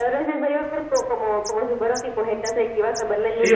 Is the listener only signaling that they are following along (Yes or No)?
No